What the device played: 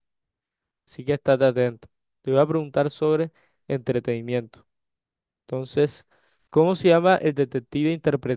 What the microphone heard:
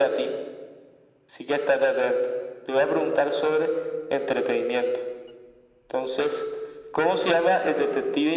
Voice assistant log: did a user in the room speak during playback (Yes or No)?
No